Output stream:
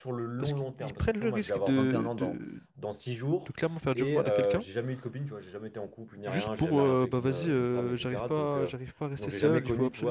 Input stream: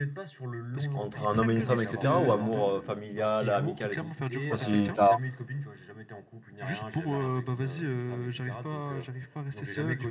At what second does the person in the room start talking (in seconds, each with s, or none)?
0.9 s